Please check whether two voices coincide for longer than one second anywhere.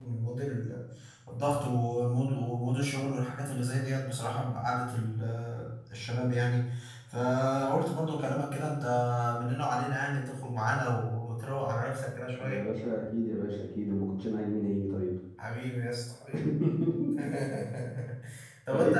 No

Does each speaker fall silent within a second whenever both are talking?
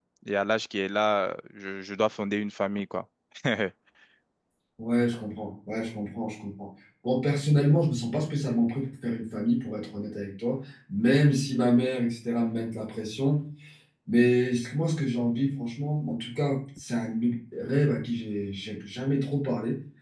Yes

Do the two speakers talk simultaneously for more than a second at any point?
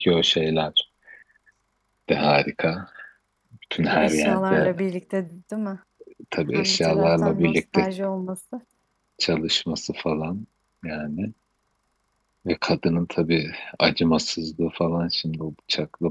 Yes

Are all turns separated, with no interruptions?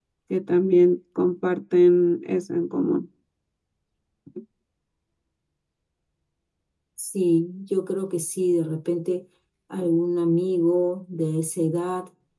Yes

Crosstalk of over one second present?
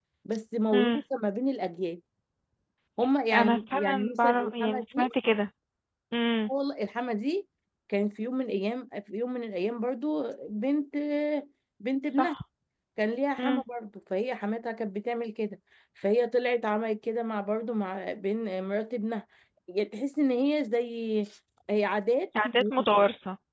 Yes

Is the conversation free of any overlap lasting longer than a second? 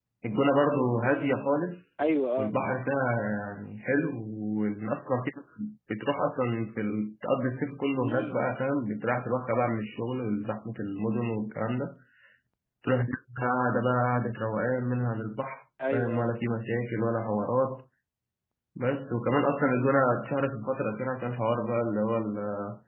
Yes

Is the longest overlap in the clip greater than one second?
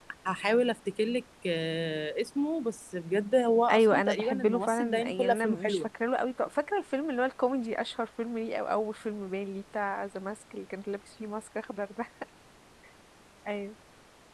Yes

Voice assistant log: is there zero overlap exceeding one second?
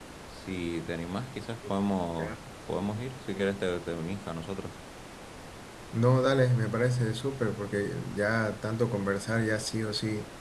Yes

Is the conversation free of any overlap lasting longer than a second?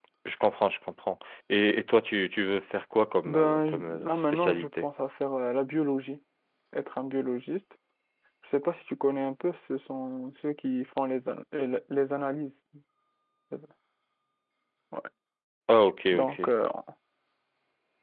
No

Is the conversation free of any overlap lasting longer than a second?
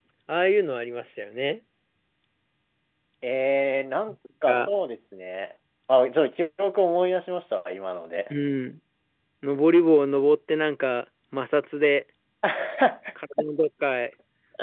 Yes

